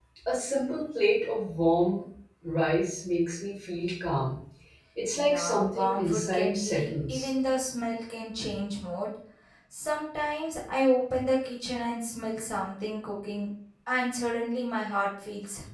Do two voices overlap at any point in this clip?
Yes, from 5.1 s

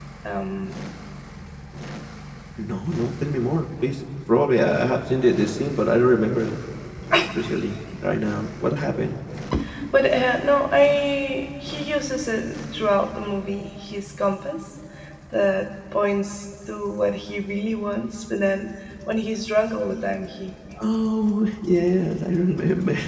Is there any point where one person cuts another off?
No

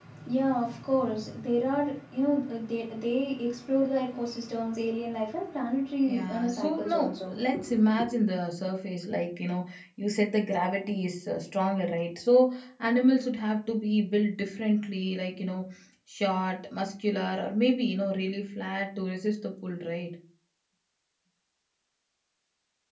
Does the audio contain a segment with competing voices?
Yes, from 6.1 s

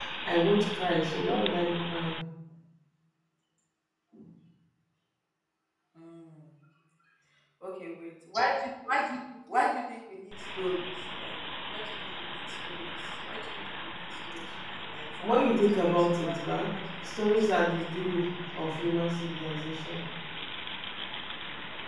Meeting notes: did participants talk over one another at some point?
Yes, from 15.2 s

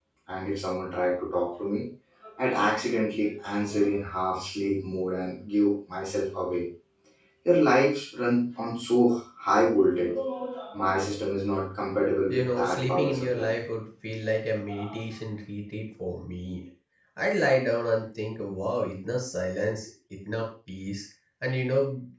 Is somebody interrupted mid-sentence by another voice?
Yes, from 12.3 s

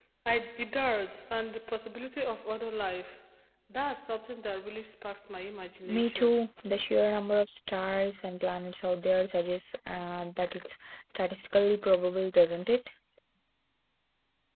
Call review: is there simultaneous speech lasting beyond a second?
No

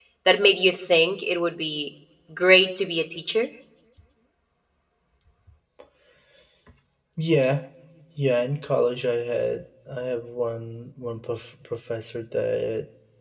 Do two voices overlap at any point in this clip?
No

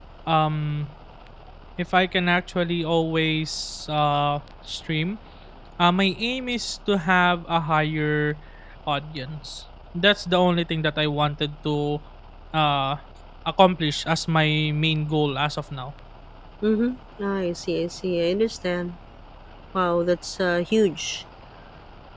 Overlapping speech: No

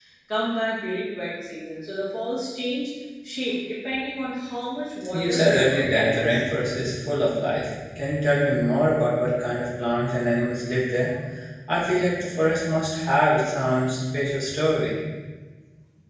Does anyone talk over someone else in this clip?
Yes, from 5.1 s

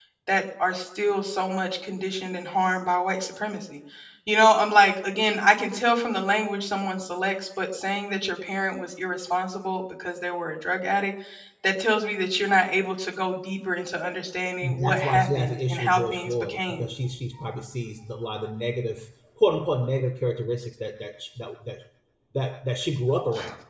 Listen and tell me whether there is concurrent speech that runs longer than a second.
Yes, from 14.6 s

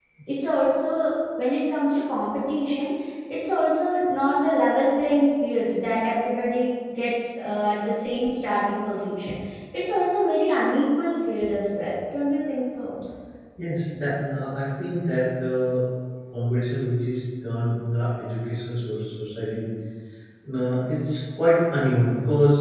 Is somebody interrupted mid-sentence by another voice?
No

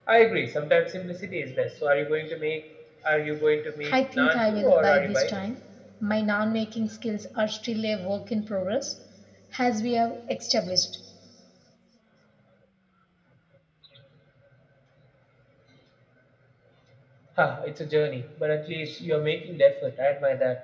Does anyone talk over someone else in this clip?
Yes, from 3.8 s

